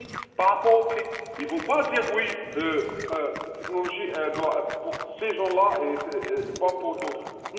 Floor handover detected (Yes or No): No